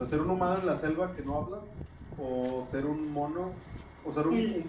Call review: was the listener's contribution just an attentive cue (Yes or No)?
Yes